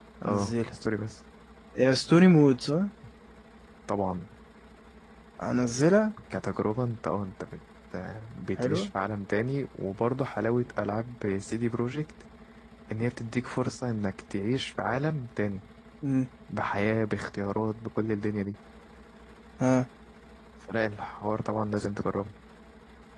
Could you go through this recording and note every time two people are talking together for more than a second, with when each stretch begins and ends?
none

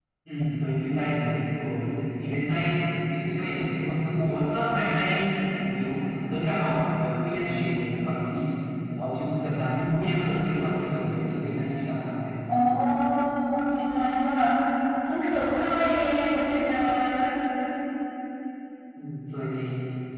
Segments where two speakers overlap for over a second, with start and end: none

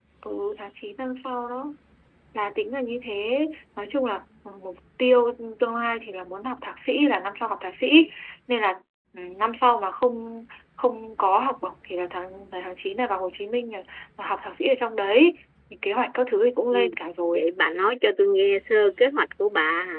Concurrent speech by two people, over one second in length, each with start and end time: none

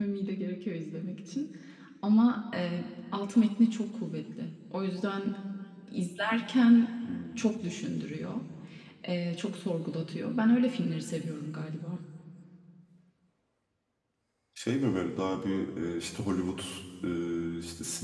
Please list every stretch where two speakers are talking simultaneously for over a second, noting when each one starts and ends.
none

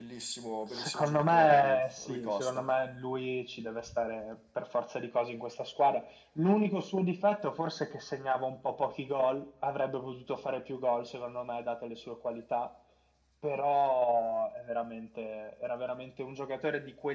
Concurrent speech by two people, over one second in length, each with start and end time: 0.7-2.7

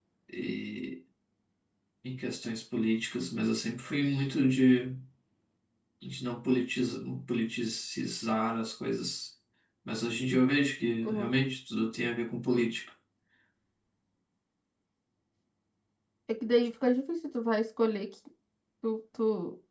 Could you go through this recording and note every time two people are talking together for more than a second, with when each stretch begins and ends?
none

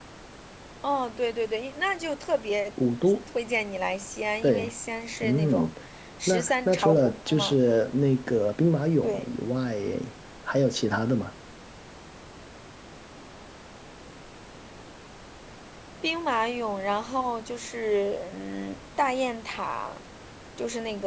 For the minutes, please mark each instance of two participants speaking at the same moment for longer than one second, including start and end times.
6.3-7.6

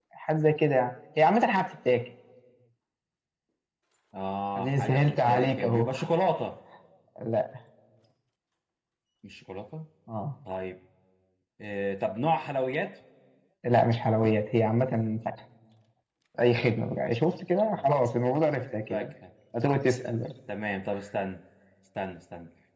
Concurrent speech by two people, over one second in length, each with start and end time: 4.6-5.9

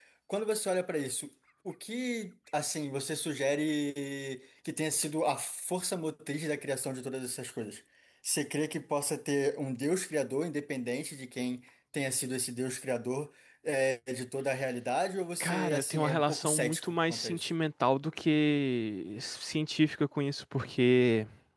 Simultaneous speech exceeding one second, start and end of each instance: 15.4-17.5

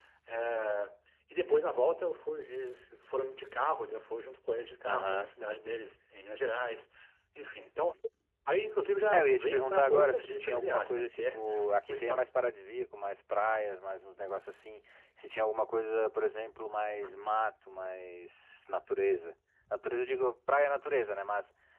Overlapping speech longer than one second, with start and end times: 9.1-11.5

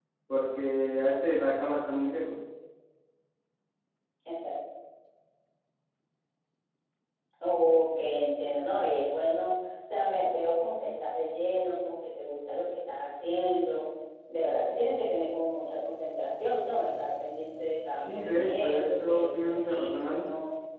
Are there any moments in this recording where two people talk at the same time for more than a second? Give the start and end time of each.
18.0-20.2

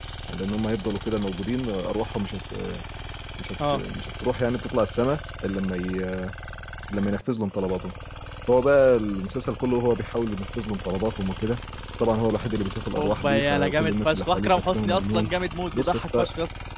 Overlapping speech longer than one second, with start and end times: 13.0-15.3

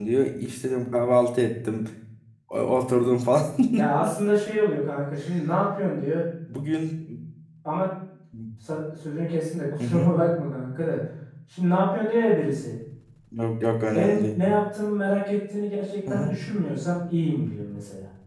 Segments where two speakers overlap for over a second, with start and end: none

